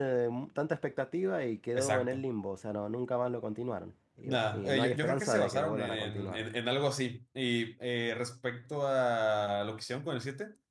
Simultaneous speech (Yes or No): Yes